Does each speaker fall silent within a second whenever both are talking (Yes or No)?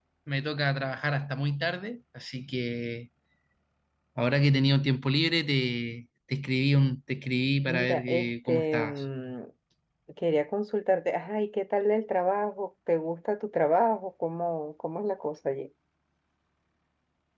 No